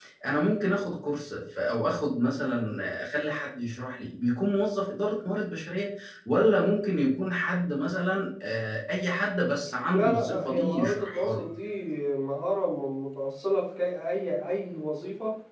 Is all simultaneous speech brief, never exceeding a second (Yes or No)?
No